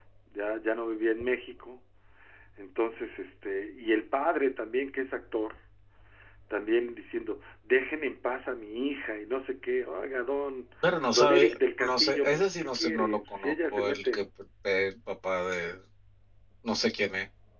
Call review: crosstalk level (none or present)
present